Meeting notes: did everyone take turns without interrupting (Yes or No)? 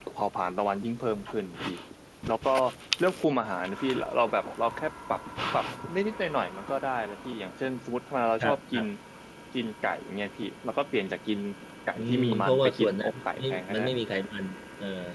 No